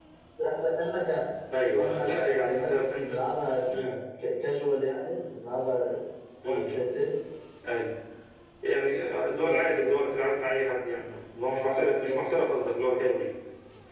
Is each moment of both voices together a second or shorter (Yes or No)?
No